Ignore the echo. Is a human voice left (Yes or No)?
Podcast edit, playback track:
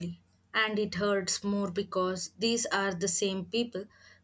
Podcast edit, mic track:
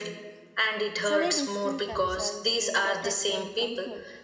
Yes